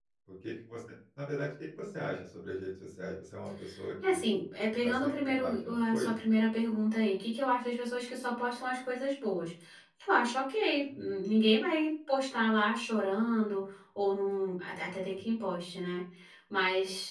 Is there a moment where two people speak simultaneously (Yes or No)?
Yes